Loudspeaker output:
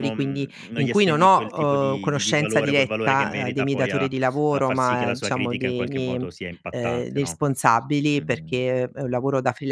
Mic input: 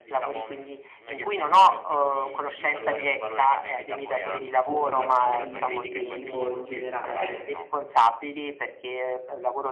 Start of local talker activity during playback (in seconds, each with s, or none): 4.3 s